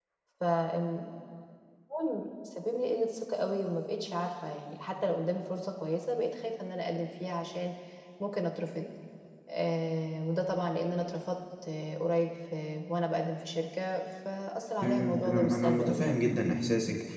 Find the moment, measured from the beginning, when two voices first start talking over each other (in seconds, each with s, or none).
14.8 s